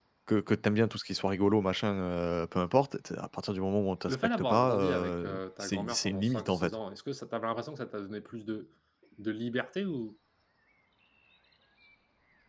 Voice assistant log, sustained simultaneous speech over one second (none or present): present